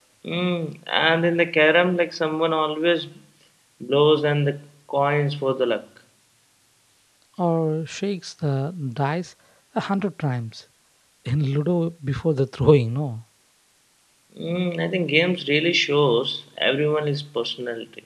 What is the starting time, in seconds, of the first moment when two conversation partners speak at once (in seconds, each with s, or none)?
none